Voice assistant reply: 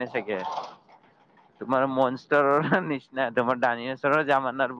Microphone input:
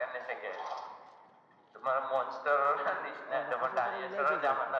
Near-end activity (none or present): present